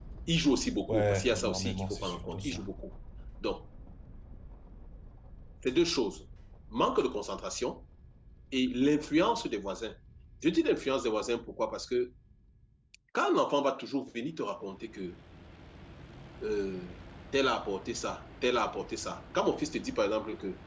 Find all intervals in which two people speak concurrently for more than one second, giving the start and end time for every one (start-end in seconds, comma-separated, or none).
0.9-2.7